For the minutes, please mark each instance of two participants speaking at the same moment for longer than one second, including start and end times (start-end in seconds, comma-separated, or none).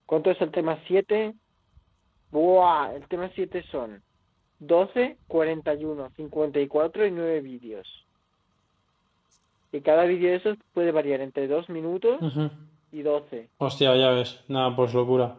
none